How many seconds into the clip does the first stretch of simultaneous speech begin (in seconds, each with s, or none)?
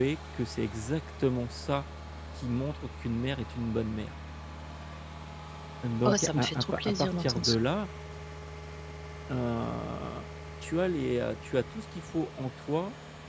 6.0 s